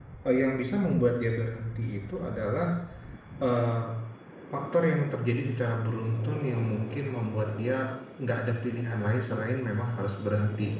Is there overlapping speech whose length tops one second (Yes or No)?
No